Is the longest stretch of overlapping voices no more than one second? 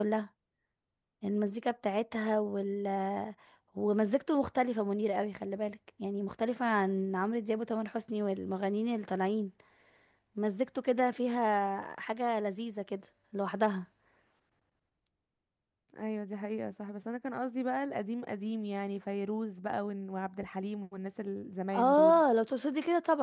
Yes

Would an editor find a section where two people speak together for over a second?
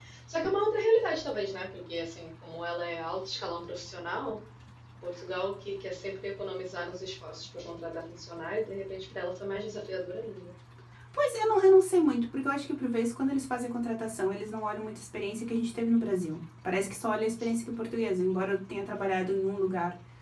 No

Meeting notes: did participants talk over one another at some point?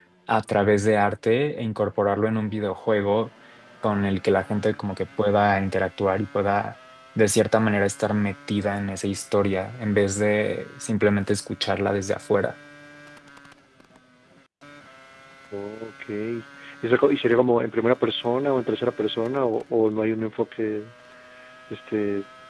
No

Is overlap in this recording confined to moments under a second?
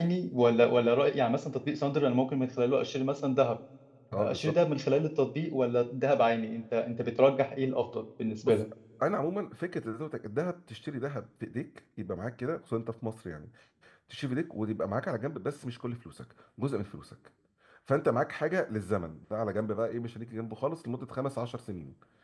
Yes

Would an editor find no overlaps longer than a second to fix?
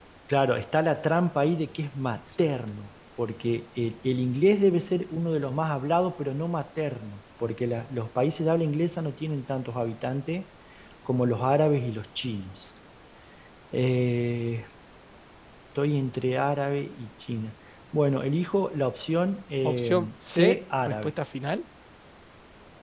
No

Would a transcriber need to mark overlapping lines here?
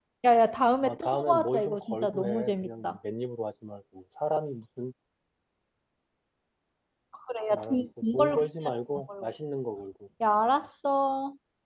Yes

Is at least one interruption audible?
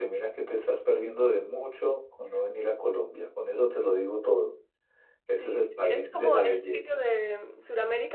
Yes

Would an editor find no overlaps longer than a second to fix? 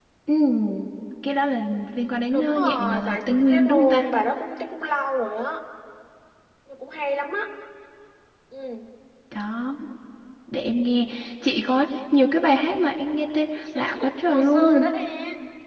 No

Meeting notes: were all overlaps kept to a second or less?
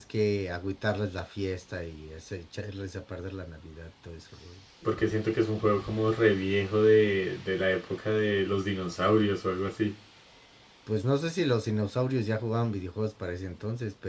Yes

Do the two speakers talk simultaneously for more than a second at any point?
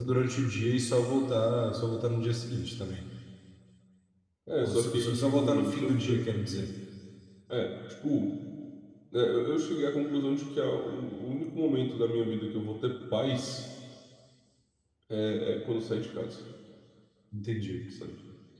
Yes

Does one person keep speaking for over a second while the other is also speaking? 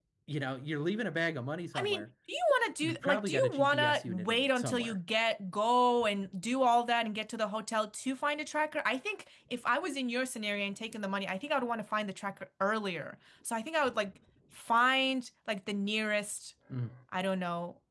Yes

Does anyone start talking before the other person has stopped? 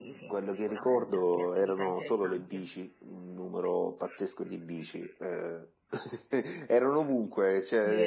Yes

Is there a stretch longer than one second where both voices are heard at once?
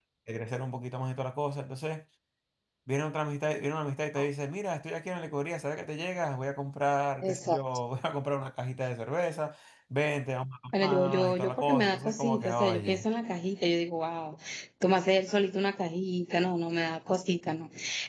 Yes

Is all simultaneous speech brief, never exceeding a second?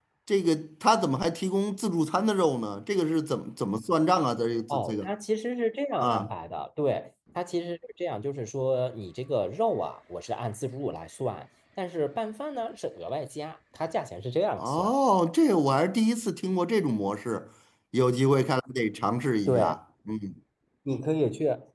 Yes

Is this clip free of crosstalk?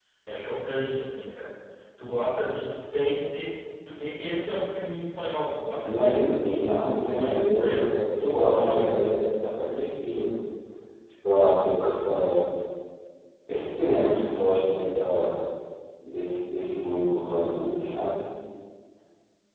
No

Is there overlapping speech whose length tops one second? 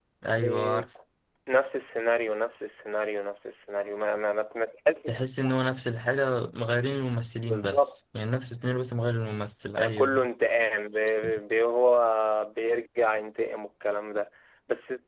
No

